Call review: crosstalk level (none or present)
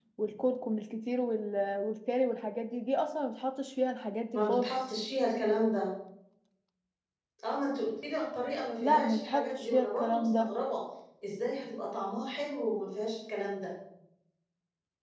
present